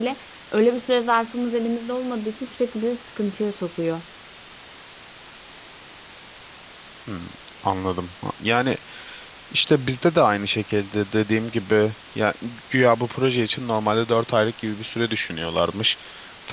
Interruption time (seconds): none

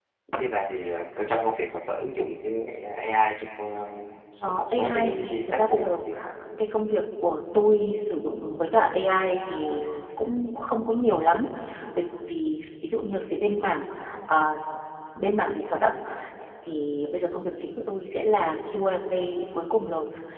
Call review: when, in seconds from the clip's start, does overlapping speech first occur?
4.5 s

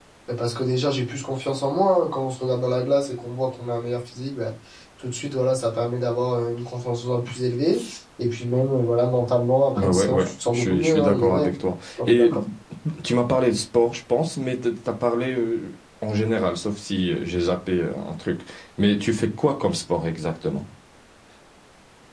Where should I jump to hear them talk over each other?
9.8 s

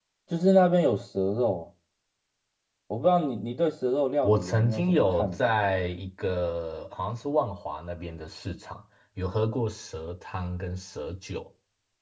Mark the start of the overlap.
4.2 s

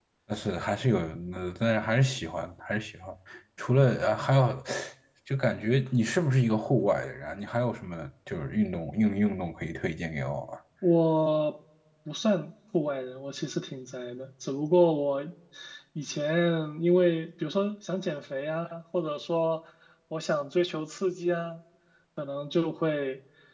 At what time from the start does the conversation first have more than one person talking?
none

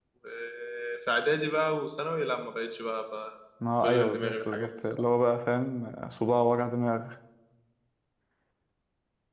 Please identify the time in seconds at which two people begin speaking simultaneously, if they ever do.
3.6 s

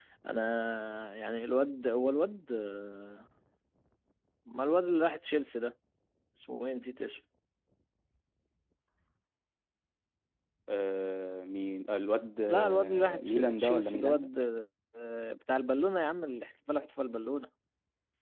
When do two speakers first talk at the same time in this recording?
12.5 s

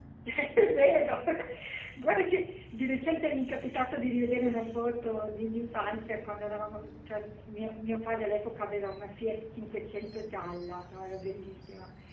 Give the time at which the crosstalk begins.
none

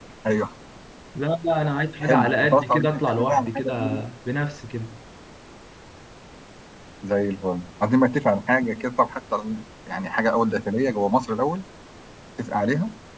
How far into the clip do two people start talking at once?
2.0 s

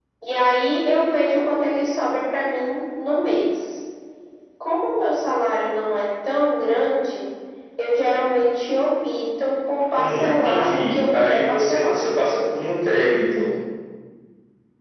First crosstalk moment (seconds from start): 9.9 s

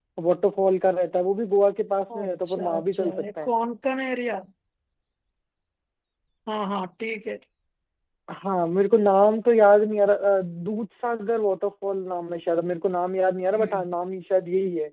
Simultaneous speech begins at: 2.2 s

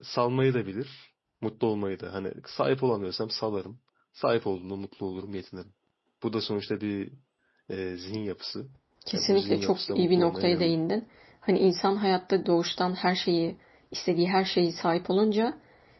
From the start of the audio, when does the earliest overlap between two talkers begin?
9.1 s

